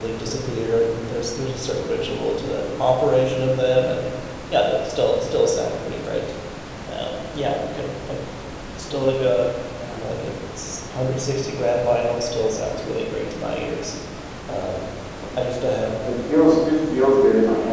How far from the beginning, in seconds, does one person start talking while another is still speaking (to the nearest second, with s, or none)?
none